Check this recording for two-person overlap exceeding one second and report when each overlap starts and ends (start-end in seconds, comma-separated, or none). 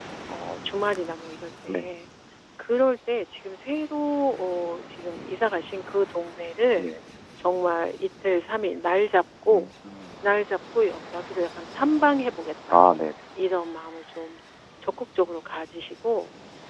none